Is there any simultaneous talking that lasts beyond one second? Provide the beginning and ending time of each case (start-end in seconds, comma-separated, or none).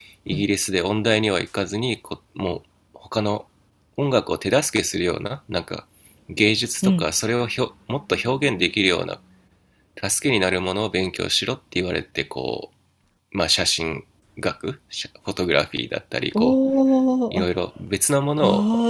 none